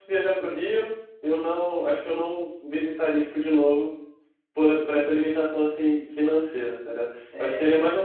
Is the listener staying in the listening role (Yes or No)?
Yes